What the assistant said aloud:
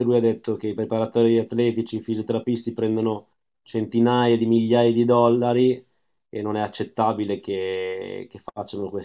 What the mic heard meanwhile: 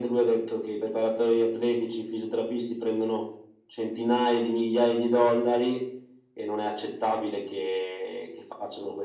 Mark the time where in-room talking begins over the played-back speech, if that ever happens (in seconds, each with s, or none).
none